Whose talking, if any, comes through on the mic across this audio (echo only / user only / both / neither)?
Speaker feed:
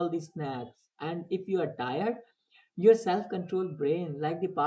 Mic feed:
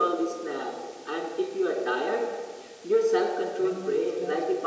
both